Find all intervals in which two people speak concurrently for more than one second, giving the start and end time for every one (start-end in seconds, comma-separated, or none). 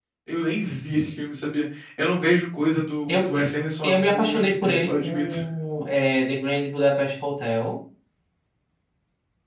3.8-5.3